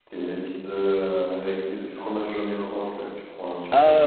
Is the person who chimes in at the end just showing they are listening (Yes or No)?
No